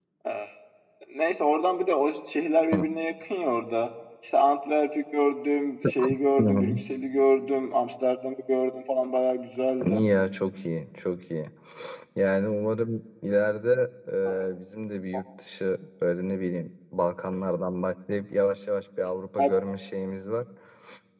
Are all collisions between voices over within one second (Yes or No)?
Yes